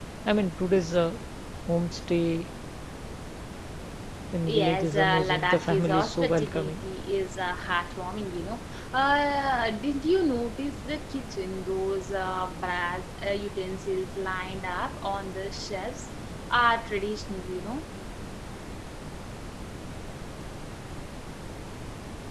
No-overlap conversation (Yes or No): No